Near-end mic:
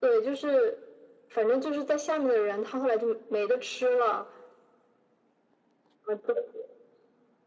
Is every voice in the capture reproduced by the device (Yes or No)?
Yes